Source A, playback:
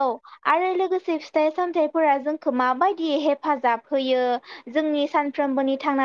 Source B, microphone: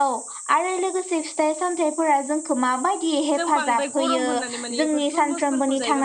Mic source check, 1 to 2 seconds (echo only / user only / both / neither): echo only